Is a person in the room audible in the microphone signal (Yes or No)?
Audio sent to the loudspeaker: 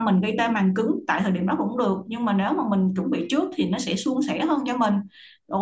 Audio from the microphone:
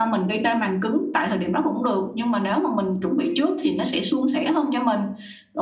No